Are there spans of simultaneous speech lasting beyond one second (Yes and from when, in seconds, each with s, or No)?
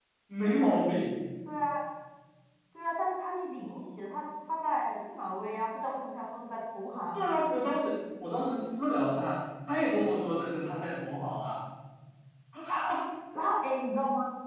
No